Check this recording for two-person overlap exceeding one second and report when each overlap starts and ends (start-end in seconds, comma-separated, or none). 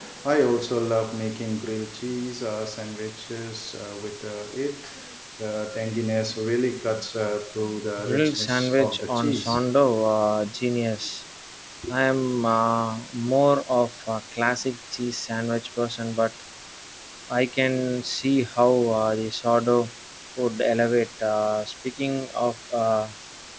8.0-9.6